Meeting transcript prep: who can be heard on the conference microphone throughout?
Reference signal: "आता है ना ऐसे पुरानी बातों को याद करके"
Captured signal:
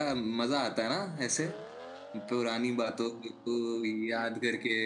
echo only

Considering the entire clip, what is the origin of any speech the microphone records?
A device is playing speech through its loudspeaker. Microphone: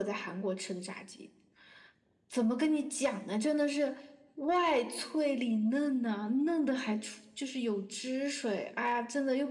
echo only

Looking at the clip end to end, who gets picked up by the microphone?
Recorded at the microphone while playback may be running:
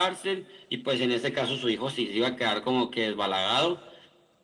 echo only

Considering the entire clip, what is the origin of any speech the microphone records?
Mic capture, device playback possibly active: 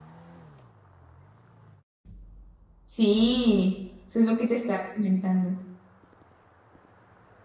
user only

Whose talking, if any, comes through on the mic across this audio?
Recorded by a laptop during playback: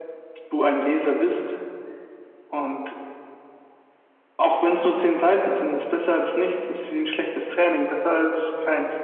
echo only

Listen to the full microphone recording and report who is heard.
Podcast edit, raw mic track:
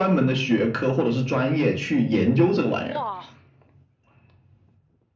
both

